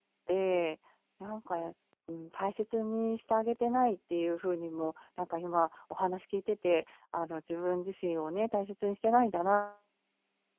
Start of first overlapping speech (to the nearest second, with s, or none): none